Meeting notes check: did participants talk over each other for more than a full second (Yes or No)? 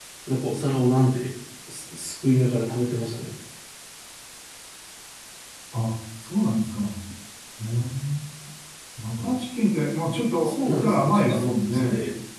Yes